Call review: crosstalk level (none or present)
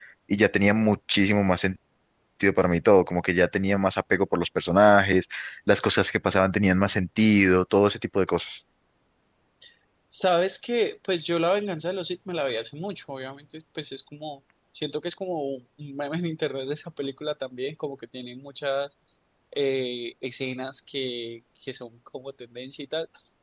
none